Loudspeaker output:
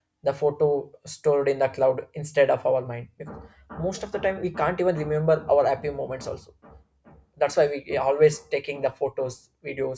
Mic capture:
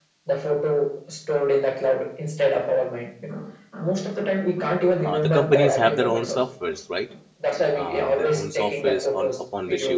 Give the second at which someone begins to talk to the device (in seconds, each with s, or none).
5.0 s